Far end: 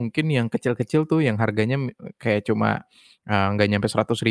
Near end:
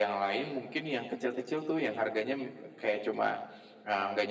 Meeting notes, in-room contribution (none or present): none